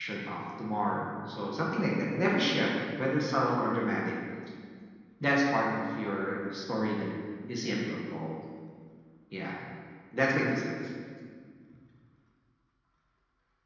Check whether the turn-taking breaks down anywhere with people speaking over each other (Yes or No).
No